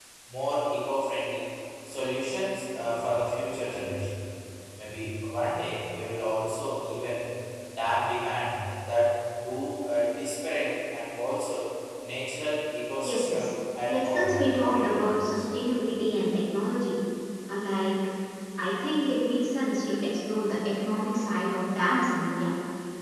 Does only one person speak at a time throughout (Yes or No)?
No